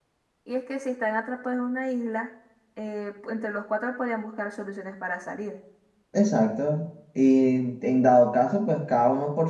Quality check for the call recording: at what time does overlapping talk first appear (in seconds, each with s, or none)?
none